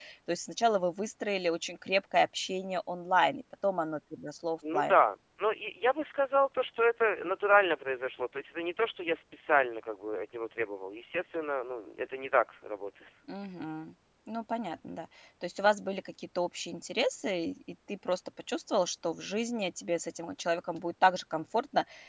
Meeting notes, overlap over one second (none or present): none